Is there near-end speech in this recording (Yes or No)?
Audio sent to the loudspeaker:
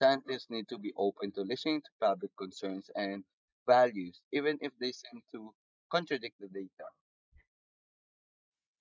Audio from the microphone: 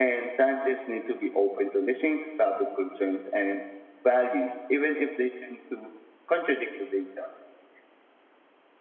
No